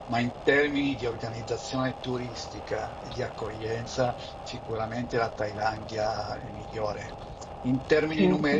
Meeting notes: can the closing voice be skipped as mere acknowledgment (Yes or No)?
Yes